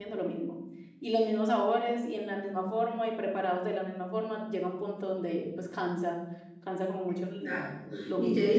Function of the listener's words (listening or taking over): taking over